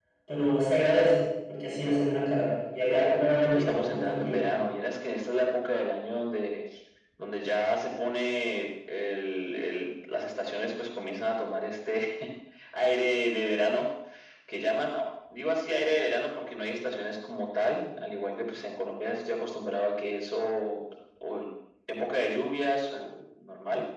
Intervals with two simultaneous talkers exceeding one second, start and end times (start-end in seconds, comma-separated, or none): 3.3-4.5